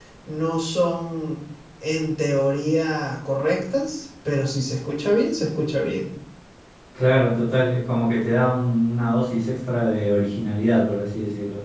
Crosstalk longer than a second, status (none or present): none